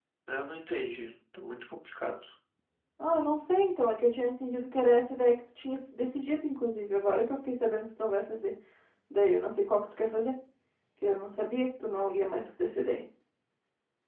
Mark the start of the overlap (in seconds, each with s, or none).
none